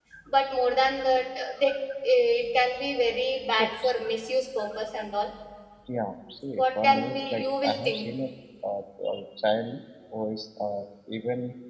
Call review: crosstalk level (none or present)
present